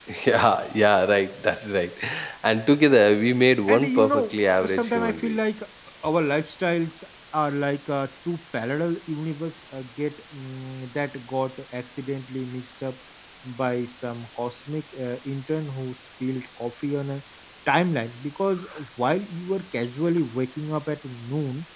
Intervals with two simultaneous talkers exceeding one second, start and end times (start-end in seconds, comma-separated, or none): 3.7-5.4